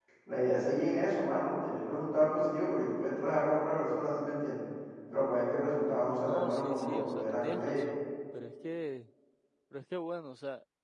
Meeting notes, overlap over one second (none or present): present